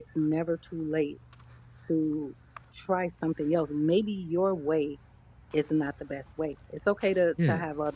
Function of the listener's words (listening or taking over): listening